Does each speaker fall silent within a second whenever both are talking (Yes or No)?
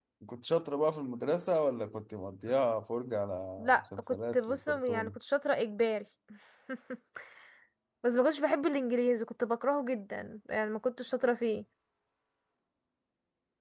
No